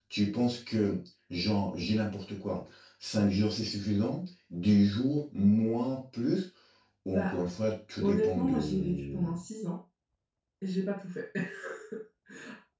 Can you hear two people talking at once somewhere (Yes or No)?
Yes